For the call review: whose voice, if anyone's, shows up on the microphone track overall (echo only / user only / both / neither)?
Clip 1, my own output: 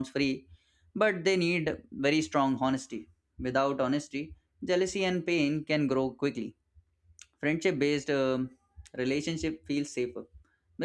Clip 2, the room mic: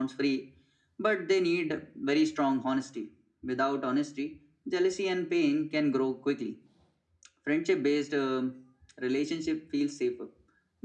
echo only